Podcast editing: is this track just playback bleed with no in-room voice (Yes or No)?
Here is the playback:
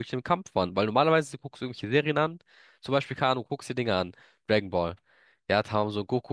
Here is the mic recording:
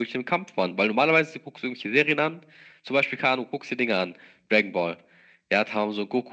Yes